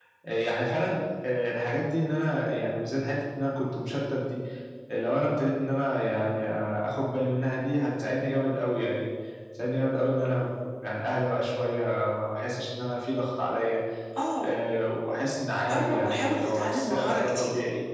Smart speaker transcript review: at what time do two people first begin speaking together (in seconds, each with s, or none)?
15.7 s